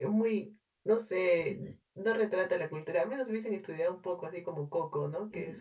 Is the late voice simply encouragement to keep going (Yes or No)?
No